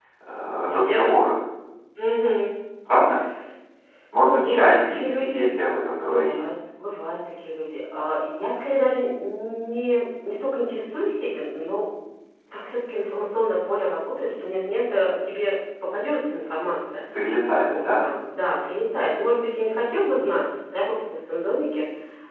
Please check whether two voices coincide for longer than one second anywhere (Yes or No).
Yes